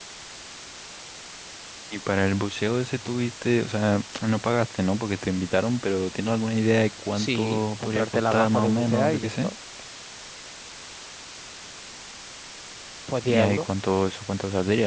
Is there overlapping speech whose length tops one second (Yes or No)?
Yes